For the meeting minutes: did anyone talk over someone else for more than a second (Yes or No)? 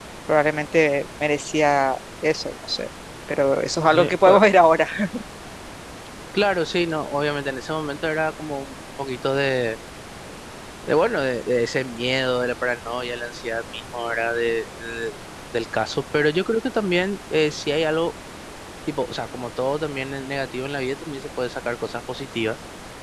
No